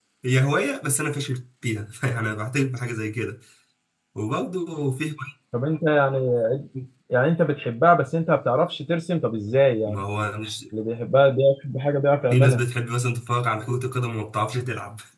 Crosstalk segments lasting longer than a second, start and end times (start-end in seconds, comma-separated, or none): none